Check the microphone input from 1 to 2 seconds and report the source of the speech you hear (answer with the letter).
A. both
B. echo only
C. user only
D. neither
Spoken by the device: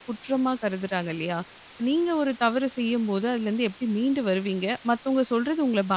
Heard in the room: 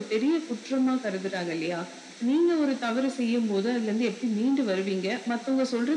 B